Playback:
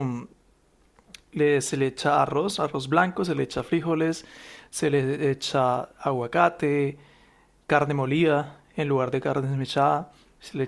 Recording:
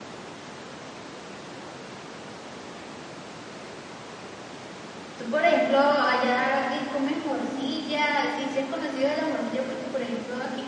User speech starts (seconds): 5.2 s

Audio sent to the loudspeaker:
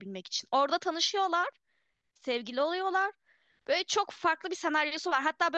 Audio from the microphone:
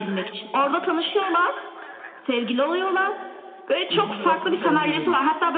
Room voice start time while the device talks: 3.8 s

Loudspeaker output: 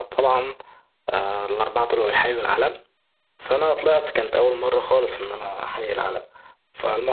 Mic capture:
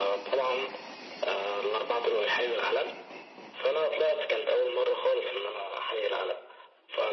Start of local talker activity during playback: none

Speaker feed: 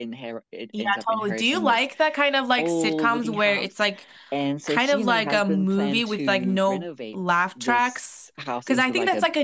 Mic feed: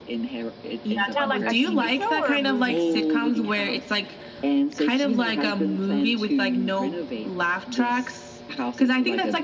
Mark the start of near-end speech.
1.1 s

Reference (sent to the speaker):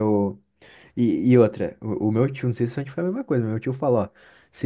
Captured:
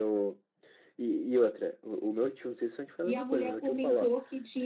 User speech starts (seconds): 3.0 s

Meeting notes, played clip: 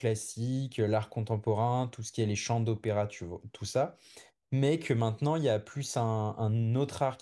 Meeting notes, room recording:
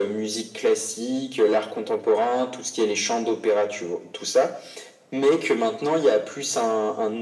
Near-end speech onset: none

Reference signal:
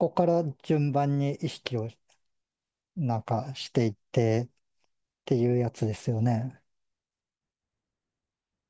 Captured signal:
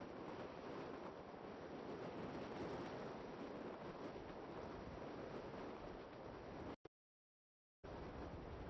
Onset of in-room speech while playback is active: none

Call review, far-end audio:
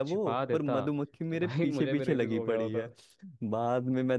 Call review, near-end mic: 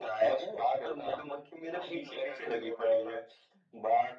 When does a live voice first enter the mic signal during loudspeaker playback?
none

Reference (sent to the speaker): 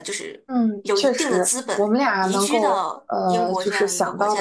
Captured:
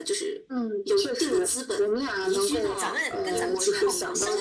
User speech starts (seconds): 2.8 s

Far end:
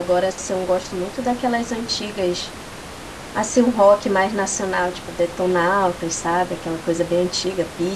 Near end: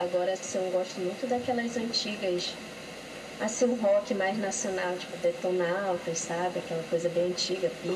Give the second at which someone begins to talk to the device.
none

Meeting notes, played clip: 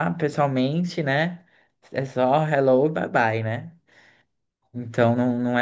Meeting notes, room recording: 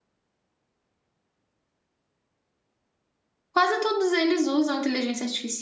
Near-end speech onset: 3.5 s

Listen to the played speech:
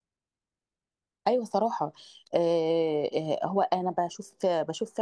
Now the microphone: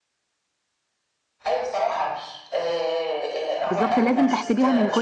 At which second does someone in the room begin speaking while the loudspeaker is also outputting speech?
3.6 s

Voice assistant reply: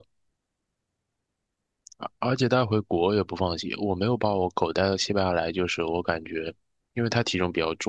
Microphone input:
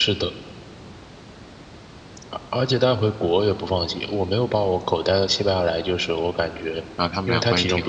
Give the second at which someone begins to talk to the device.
7.0 s

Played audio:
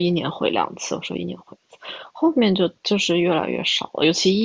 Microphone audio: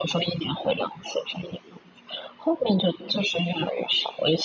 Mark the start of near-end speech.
none

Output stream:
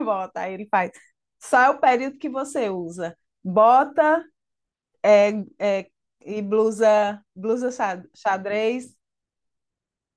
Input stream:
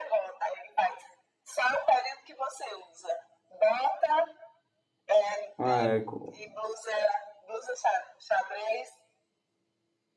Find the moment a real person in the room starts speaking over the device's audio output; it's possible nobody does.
5.6 s

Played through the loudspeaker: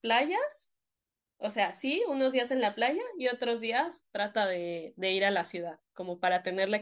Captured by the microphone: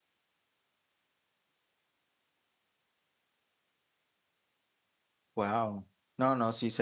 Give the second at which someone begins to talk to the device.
5.3 s

